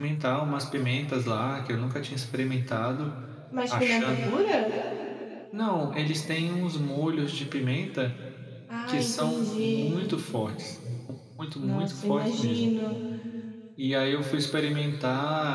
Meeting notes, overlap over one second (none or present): present